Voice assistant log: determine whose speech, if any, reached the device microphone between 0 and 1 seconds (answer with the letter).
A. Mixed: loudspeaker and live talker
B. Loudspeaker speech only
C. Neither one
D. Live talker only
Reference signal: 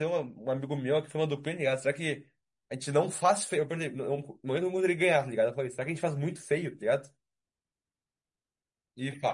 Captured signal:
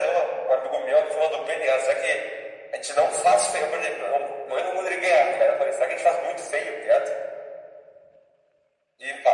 B